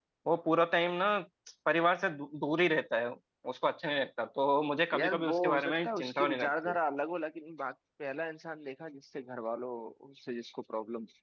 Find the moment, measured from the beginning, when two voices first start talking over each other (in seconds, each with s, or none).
4.9 s